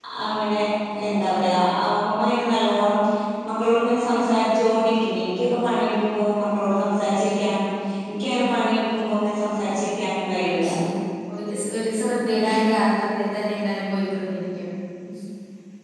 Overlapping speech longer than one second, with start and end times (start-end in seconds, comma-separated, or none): none